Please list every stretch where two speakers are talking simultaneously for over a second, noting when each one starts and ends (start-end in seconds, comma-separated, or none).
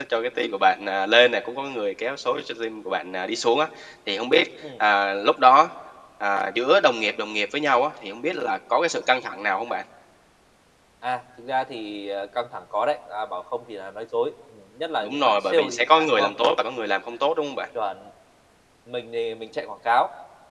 15.0-16.3